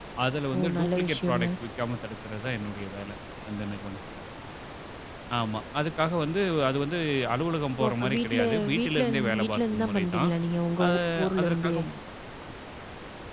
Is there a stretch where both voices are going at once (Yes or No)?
Yes